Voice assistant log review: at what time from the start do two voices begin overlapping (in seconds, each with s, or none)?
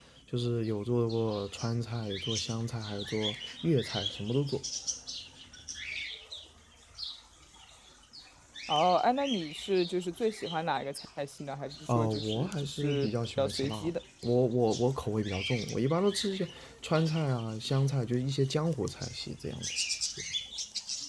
11.9 s